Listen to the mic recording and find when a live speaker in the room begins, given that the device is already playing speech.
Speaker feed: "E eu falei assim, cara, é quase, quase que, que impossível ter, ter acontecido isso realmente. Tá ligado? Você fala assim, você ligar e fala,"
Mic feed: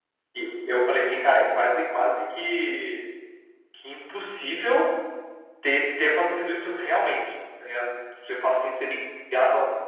none

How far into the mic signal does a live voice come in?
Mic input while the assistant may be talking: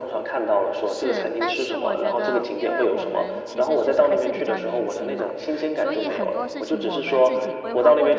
1 s

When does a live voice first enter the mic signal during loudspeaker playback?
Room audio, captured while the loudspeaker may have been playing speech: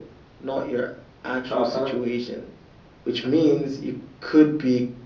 1 s

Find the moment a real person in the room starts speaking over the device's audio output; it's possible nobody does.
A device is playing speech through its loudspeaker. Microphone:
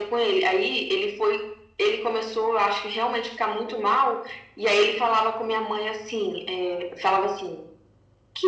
none

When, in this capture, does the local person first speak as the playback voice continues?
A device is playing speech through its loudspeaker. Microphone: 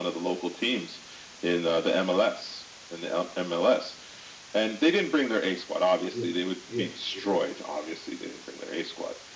6 s

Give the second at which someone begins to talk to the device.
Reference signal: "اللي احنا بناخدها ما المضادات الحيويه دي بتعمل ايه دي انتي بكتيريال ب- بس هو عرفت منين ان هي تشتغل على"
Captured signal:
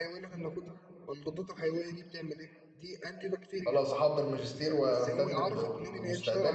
4 s

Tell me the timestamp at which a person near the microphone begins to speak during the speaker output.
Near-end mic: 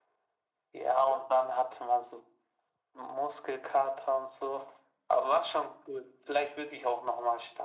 none

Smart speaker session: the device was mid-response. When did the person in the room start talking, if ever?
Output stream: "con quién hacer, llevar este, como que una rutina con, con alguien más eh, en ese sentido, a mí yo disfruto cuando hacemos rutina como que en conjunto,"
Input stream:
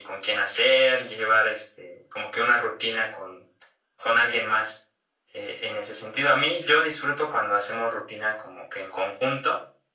none

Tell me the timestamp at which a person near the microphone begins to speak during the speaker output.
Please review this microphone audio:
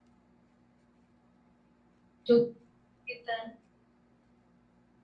2 s

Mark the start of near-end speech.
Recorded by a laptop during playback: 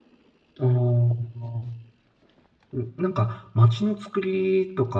1 s

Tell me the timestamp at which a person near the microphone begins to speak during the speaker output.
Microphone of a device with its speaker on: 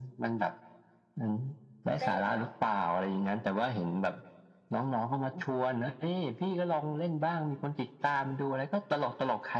2 s

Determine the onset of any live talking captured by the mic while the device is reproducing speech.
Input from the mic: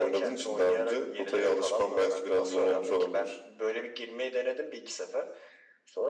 none

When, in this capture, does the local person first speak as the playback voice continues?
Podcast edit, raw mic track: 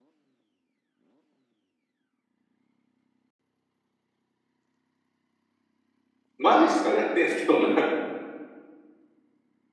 6 s

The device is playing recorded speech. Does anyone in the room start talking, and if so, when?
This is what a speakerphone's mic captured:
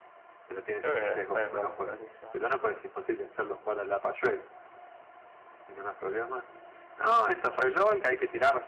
1 s

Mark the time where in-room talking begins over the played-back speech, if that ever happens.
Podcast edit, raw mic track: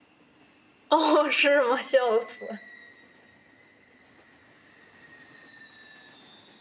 1 s

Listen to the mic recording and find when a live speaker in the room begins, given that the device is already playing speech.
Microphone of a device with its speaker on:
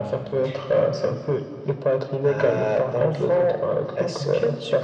none

